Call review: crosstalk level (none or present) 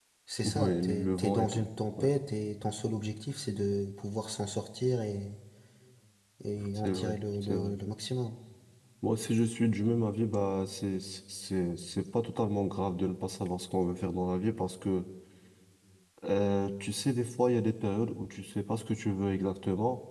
present